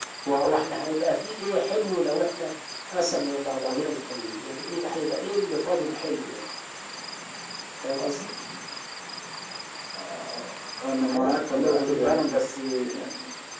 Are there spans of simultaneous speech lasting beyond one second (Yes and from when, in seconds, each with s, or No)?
Yes, from 11.0 s